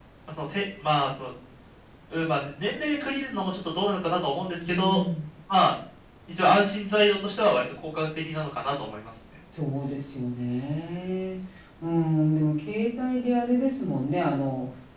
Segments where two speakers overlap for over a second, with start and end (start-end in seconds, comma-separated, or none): none